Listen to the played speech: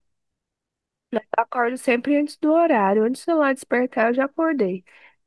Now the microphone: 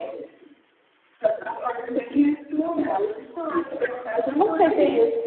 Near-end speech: present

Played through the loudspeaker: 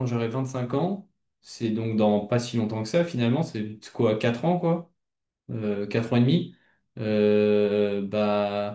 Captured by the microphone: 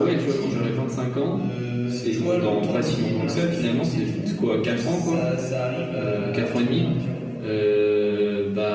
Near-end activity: present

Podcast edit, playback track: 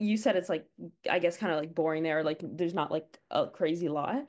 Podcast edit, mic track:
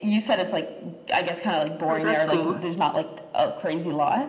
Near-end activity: present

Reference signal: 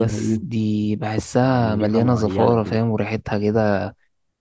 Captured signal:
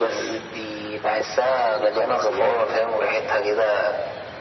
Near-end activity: none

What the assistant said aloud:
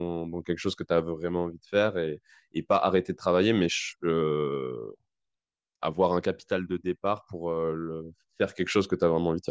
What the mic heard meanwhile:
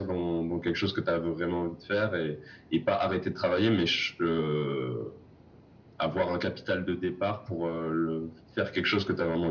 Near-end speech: none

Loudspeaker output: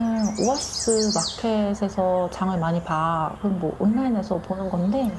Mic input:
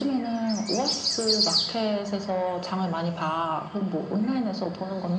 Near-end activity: none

